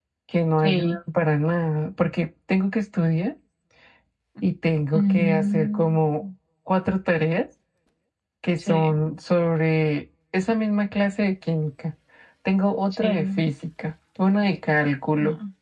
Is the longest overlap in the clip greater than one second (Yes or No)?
Yes